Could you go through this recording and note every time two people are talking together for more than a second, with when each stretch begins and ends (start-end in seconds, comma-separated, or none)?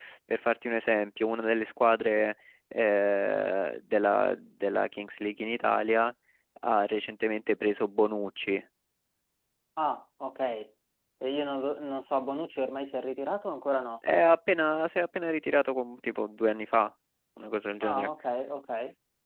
none